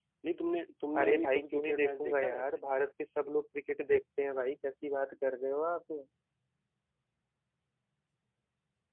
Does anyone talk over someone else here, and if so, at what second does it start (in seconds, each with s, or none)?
1.0 s